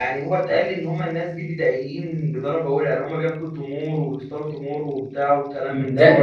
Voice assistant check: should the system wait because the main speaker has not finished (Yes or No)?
No